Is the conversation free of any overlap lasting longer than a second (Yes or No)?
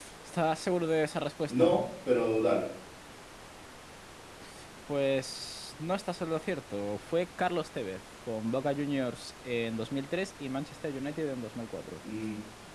Yes